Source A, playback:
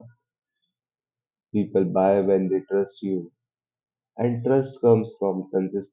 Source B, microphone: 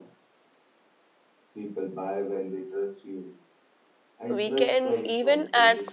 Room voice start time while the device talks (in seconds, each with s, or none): 4.4 s